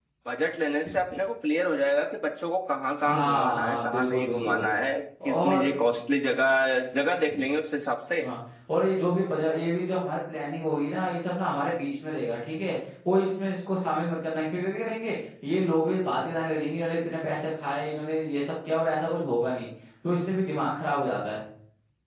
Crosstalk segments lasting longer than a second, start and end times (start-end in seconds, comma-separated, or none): 3.0-4.7